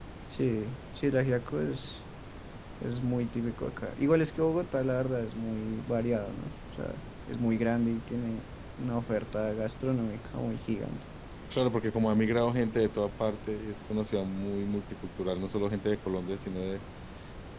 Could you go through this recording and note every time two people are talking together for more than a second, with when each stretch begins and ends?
none

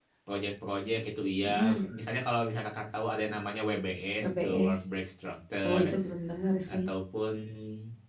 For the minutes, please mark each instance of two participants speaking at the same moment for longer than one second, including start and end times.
none

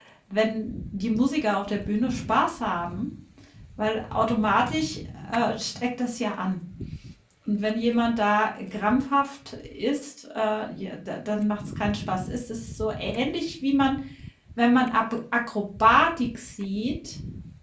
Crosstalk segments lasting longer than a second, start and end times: none

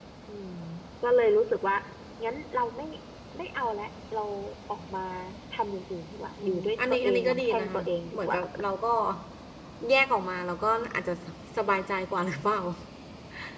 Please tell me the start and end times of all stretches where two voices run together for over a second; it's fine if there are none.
6.4-8.4

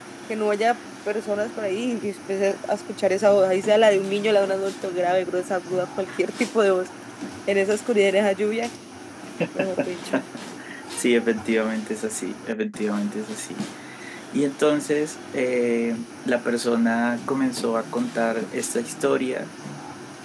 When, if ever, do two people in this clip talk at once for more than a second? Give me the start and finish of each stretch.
none

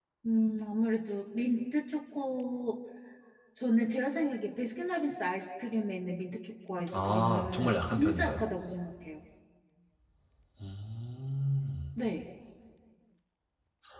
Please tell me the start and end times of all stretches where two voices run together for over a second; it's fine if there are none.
6.9-8.4

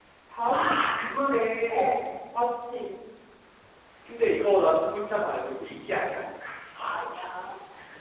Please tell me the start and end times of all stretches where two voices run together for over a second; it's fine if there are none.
none

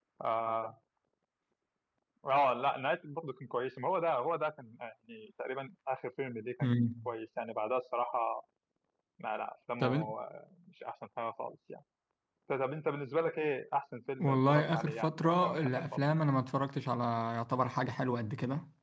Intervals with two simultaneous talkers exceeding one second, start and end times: 14.2-16.0

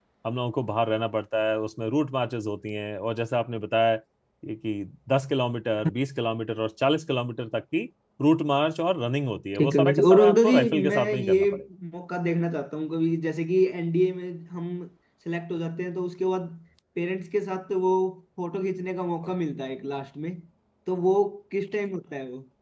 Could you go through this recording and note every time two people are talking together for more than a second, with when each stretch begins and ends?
9.6-11.4

